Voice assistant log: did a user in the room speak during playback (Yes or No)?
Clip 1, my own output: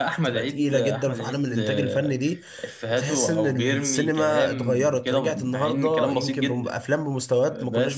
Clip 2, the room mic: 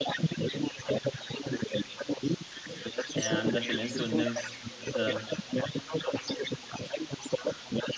Yes